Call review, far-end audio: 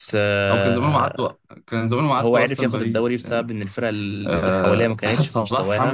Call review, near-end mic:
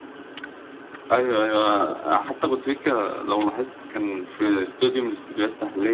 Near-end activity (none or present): present